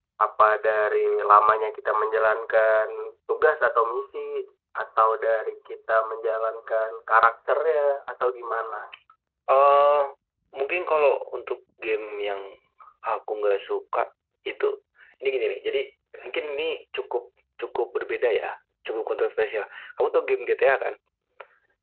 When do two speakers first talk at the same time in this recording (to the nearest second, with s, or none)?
none